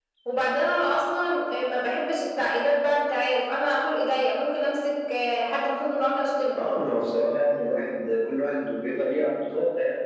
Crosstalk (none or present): none